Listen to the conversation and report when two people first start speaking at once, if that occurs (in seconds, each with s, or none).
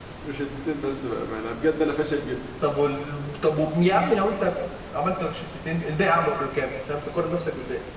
none